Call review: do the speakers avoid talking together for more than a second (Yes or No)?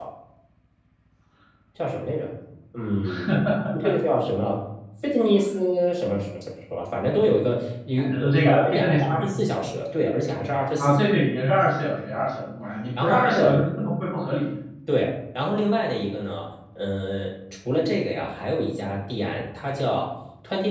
No